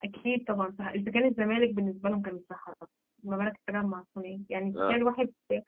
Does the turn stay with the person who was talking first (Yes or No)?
Yes